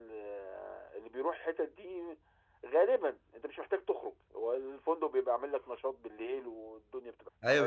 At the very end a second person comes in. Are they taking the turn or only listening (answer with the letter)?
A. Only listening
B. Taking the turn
B